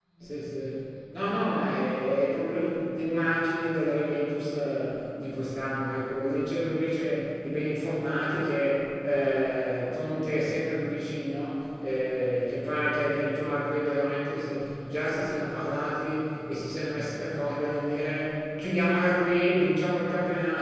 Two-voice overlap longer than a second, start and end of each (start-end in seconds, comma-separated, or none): none